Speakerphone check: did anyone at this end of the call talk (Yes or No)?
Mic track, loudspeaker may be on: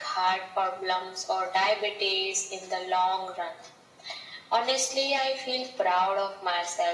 No